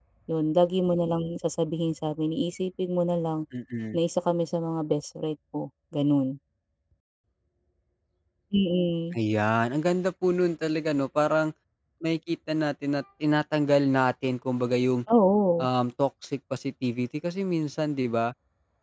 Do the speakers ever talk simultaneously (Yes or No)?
No